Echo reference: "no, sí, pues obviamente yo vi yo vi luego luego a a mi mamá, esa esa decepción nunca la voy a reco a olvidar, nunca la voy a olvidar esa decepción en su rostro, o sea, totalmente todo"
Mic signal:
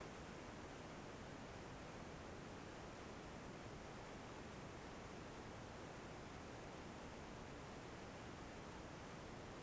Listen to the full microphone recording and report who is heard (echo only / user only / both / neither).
neither